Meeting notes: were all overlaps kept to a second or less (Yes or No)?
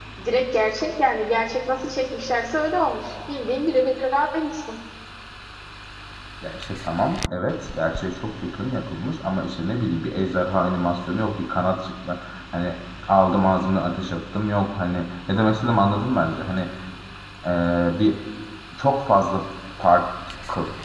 Yes